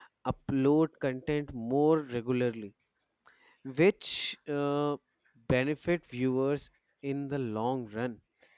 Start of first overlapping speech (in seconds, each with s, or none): none